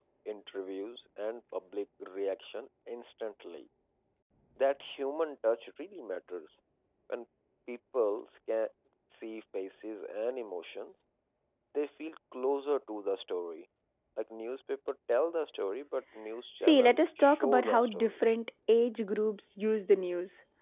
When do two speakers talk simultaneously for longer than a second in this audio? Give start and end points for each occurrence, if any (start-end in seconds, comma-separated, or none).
16.7-18.1